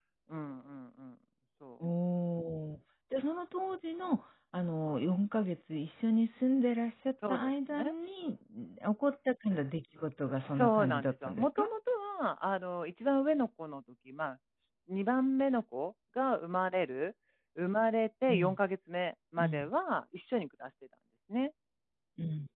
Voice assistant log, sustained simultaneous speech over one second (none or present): present